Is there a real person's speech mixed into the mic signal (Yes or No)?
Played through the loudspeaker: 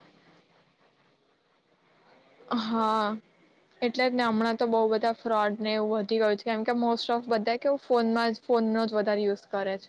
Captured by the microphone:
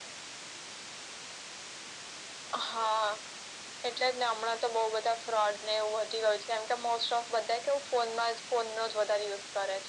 No